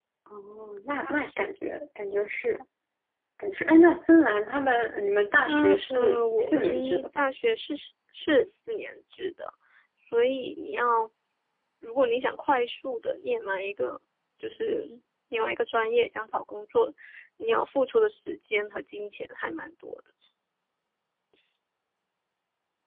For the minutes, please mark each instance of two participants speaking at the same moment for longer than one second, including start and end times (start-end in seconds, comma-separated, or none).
5.5-7.2